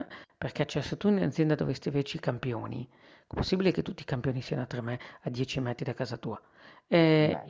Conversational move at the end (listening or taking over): listening